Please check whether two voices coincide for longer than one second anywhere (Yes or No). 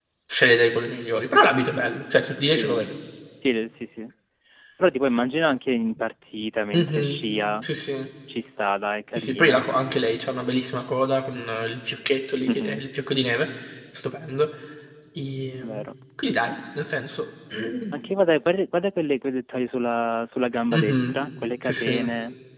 No